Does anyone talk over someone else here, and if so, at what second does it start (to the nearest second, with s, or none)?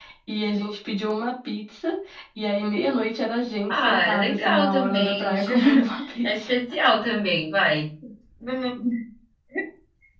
4 s